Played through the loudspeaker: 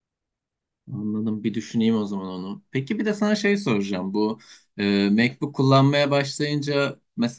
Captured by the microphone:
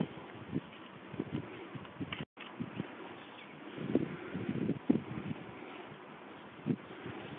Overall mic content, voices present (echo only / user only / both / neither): neither